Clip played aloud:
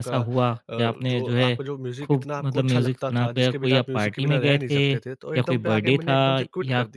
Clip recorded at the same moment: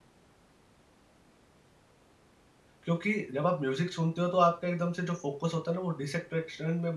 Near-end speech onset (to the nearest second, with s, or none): 3 s